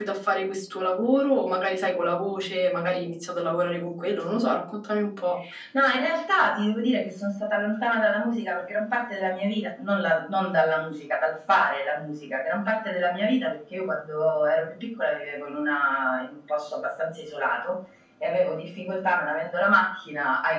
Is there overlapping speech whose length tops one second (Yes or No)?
No